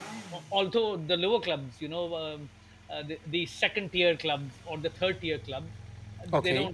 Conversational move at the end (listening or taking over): listening